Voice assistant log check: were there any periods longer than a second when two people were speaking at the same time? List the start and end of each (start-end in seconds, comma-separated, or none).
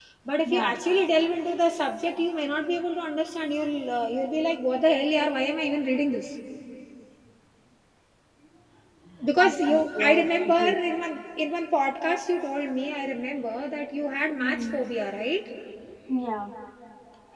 9.4-10.8